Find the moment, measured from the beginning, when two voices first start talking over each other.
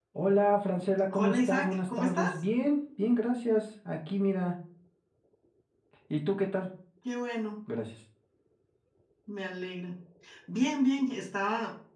1.1 s

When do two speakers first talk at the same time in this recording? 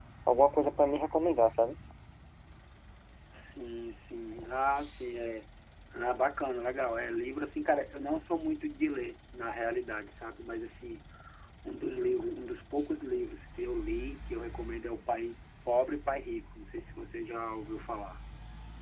none

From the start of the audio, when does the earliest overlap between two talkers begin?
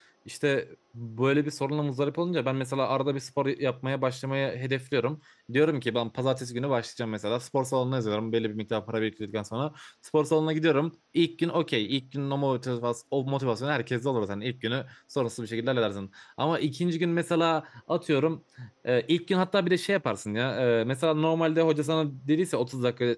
none

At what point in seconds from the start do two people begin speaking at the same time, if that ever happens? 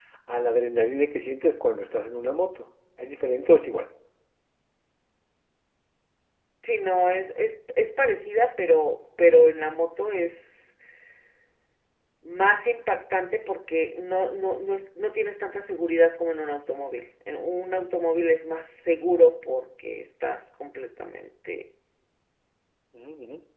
none

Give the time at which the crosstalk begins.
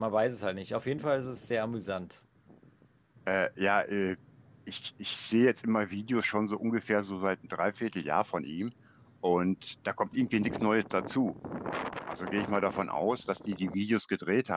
none

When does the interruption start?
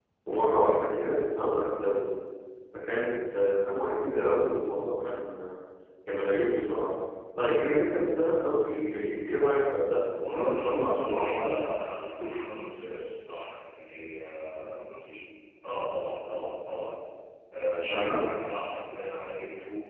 10.2 s

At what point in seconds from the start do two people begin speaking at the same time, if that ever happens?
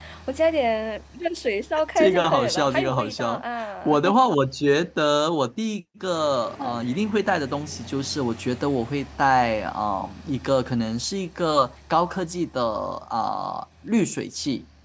2.0 s

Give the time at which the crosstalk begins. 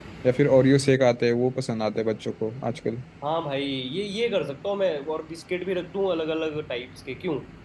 none

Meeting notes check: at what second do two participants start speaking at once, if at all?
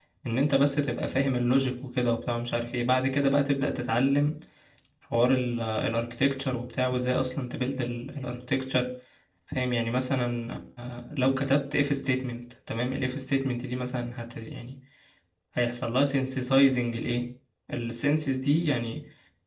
none

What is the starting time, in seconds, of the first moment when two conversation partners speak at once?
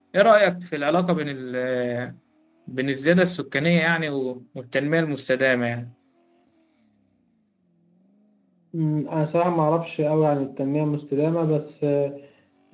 none

